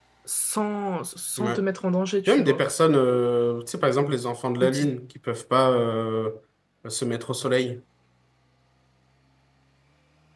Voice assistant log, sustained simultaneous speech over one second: none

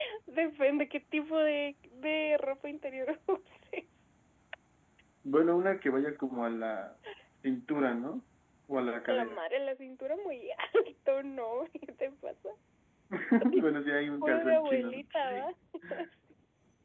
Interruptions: present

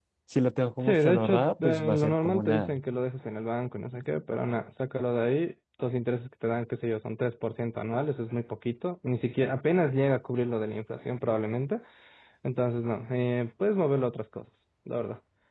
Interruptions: present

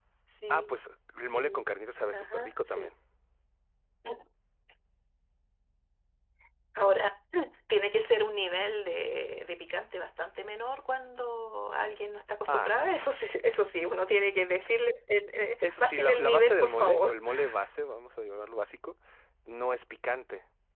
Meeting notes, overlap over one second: present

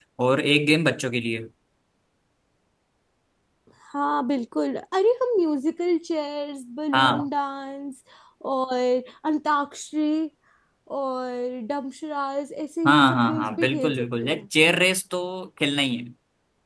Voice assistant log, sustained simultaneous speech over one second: present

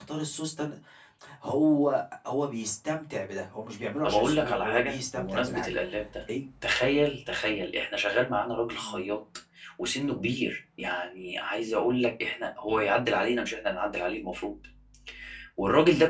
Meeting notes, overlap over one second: present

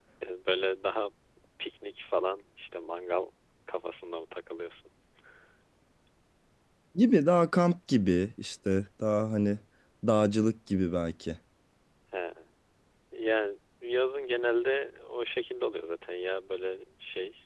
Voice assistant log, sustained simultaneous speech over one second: none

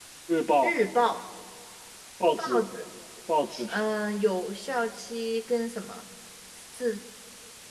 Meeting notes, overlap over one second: none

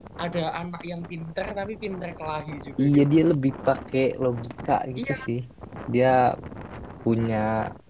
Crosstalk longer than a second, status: none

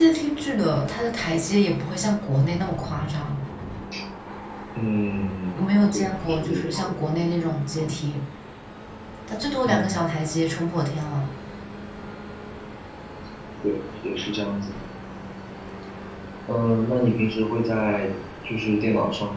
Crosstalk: present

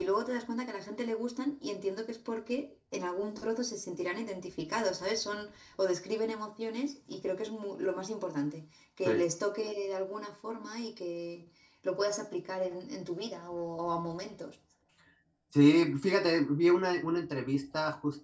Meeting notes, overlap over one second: none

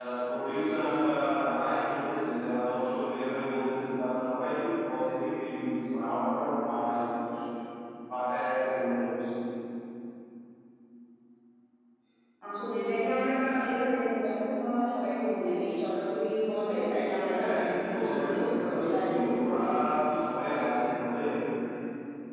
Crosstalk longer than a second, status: present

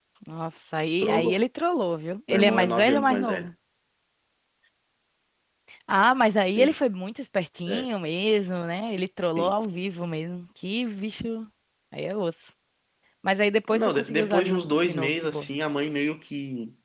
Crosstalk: present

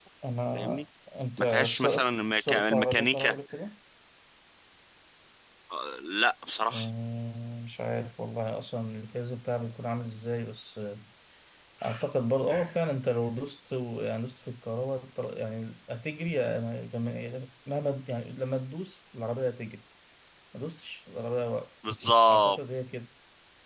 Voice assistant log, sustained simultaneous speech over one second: present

